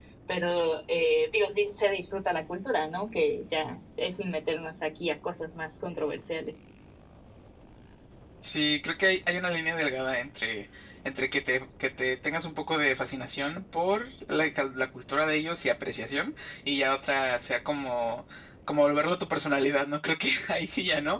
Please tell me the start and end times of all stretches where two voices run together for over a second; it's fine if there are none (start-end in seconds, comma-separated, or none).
none